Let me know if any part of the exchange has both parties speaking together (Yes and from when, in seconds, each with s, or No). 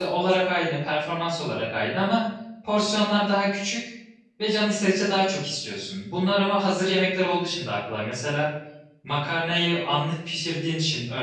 No